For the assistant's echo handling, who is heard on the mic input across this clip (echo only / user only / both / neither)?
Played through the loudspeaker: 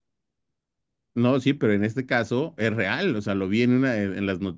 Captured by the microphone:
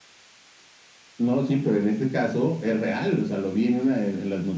echo only